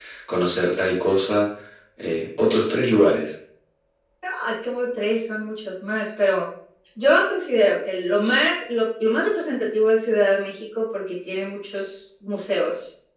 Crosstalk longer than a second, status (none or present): none